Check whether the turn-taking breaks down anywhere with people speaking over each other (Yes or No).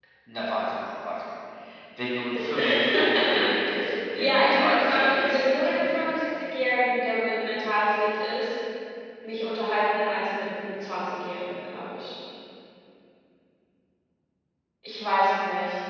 Yes